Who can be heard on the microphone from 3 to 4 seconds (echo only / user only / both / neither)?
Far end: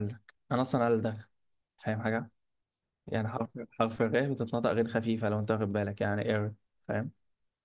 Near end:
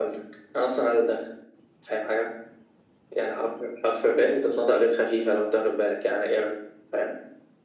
echo only